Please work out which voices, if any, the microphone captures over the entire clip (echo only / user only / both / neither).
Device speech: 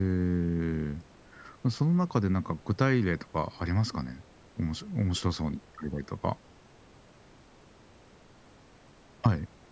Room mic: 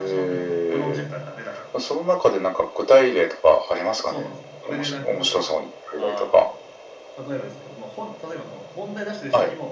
both